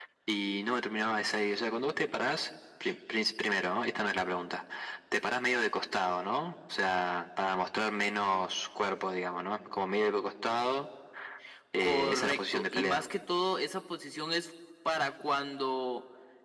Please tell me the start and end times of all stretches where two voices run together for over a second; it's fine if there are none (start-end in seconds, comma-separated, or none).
11.8-13.0